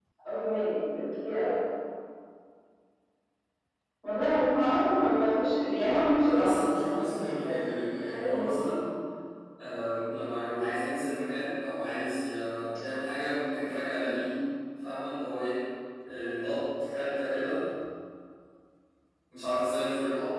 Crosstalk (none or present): present